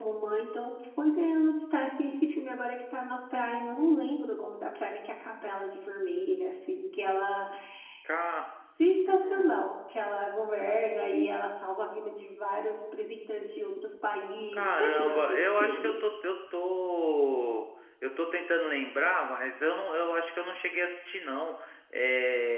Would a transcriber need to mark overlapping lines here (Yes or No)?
Yes